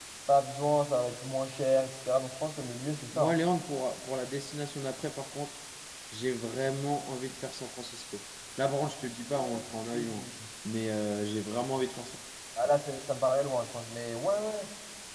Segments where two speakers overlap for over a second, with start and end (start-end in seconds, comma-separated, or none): none